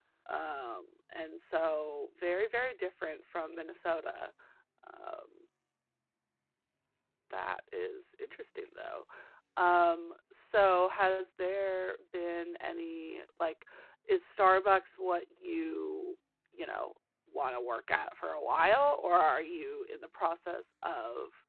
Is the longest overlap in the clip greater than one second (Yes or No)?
No